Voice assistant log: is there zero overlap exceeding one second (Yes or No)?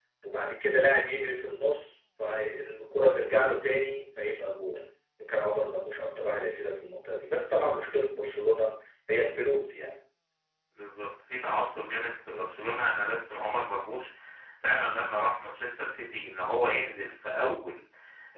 Yes